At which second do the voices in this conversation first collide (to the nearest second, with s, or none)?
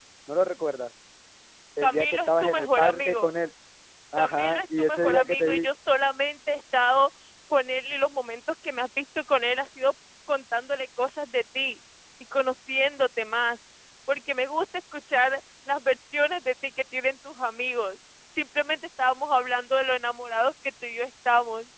2 s